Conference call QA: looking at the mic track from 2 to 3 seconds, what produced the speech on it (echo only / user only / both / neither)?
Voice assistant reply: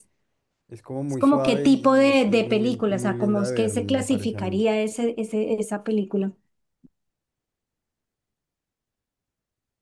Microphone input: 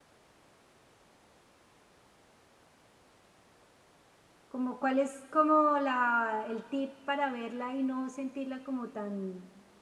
neither